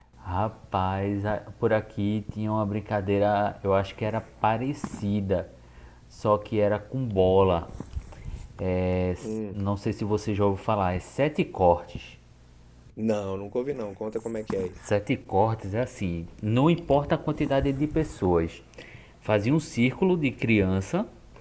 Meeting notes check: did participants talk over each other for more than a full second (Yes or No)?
No